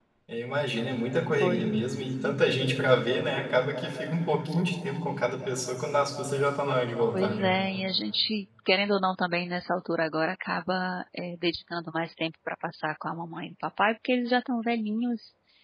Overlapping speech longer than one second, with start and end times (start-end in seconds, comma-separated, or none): none